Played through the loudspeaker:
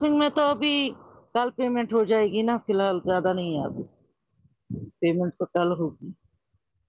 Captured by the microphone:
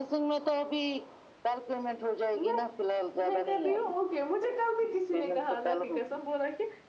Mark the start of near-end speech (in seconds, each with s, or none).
2.4 s